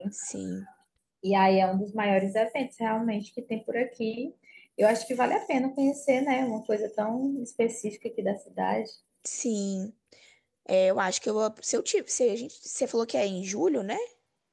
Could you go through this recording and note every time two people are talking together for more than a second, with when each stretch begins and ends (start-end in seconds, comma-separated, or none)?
none